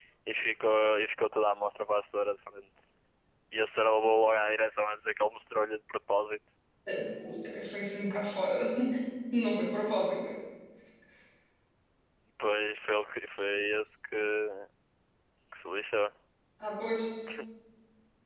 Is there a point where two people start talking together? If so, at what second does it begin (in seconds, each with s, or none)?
none